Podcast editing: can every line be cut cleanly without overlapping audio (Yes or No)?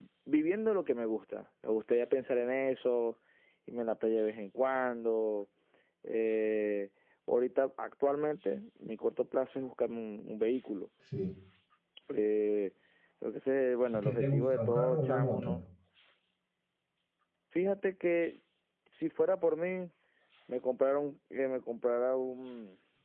No